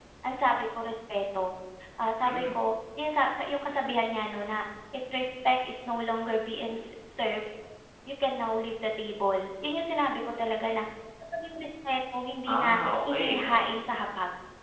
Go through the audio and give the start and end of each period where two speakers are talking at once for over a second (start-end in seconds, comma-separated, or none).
12.5-13.7